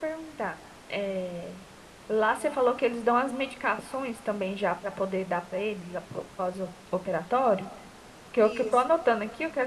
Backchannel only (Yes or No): Yes